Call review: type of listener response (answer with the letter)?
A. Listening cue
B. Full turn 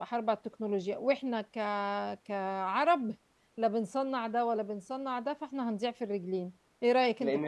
B